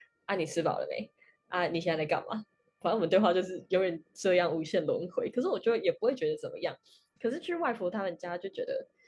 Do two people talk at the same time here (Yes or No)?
No